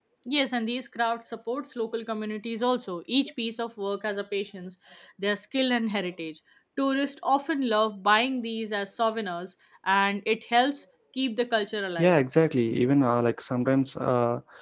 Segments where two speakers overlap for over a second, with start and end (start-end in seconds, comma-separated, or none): none